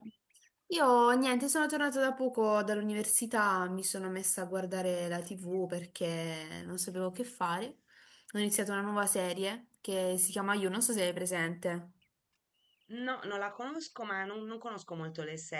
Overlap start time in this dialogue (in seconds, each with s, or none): none